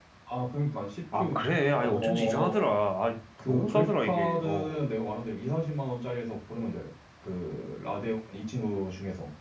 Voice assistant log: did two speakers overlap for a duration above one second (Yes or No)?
Yes